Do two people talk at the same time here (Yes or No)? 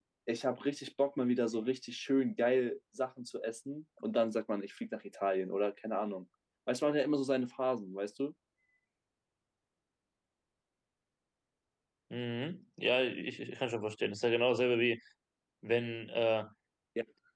No